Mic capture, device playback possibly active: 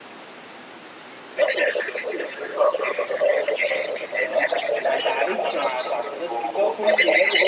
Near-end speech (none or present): present